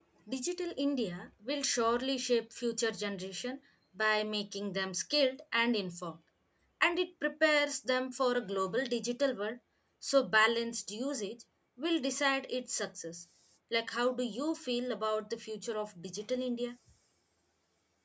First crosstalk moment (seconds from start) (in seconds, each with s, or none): none